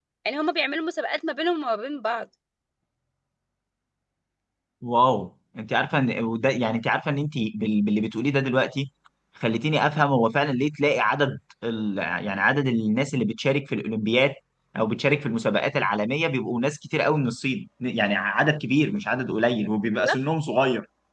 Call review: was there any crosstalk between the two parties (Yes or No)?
No